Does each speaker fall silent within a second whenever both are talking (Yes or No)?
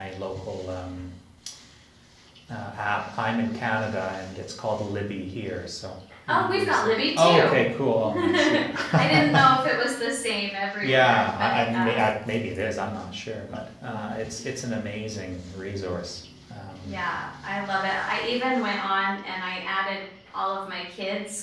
No